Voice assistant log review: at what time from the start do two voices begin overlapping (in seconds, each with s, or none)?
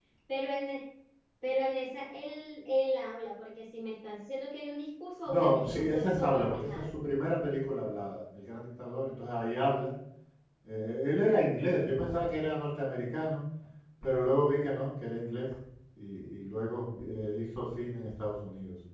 5.3 s